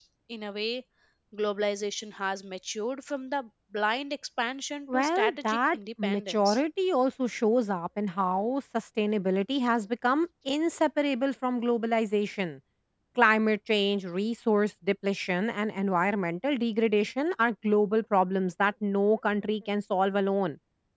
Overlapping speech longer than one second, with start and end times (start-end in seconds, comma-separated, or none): 4.9-6.6